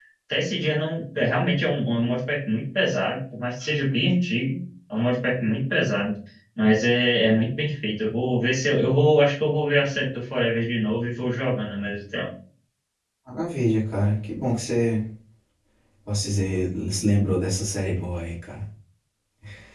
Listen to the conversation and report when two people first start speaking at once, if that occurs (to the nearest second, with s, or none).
none